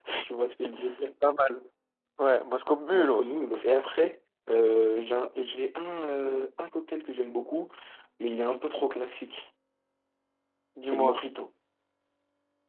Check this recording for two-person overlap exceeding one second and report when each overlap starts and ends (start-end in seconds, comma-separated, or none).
none